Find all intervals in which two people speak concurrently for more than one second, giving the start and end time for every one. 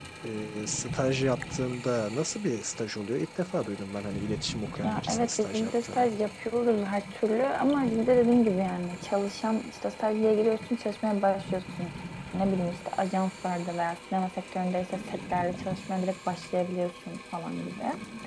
4.8-6.1

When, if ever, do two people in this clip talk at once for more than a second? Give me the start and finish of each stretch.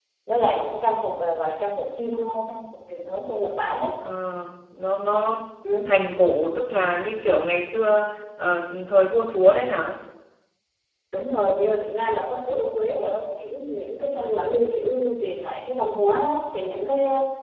none

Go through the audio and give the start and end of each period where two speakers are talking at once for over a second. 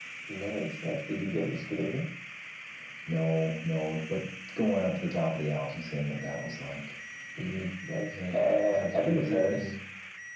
8.3-9.7

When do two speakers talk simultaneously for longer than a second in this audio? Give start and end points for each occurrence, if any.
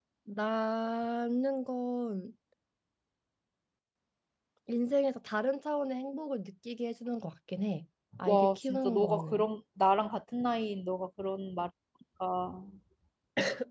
8.3-9.5

